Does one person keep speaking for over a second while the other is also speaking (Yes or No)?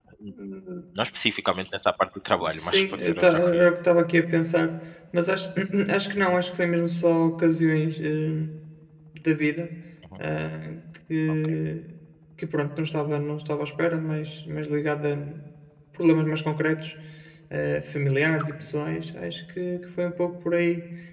Yes